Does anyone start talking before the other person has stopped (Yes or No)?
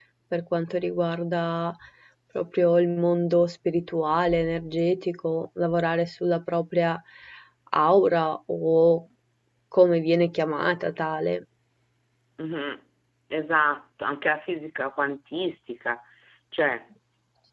No